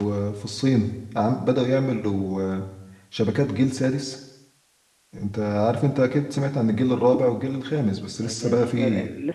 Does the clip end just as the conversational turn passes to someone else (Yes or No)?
Yes